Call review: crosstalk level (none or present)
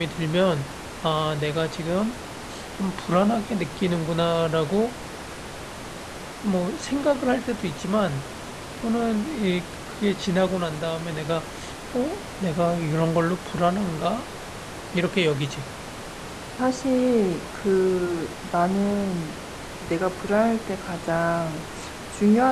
none